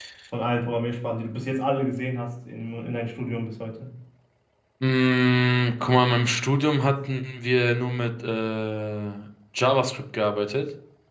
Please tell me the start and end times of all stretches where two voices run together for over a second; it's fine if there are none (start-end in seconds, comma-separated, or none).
none